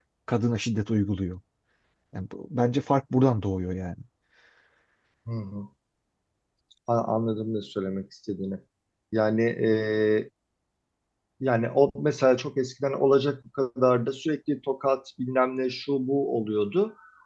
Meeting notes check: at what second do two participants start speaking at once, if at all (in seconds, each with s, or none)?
none